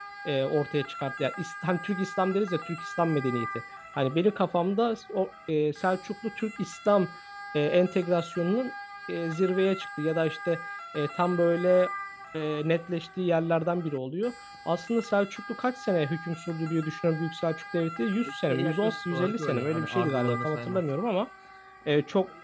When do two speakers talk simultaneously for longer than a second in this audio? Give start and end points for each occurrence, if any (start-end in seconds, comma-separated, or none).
18.5-20.8